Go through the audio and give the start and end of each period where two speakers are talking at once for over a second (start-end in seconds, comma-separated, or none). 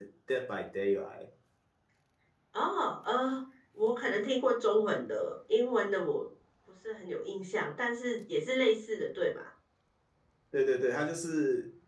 none